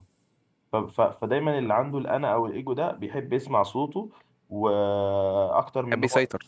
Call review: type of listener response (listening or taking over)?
listening